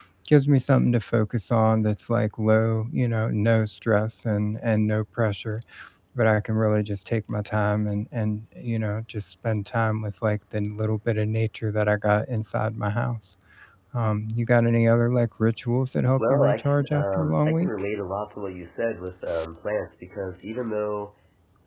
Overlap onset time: 16 s

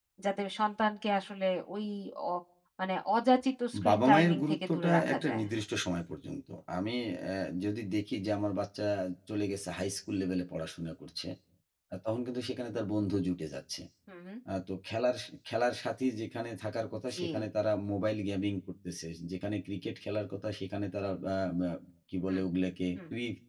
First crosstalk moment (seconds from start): 4 s

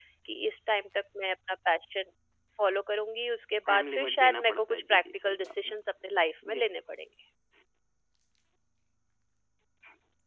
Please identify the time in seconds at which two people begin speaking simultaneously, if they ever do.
4 s

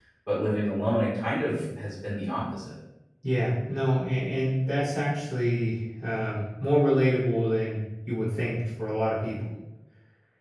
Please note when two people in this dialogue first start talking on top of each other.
none

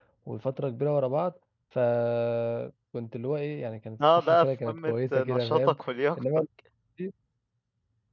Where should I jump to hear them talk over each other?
4 s

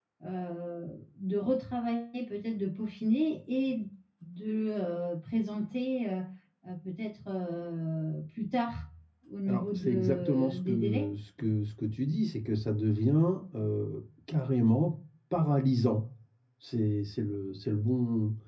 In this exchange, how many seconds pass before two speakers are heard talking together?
9 s

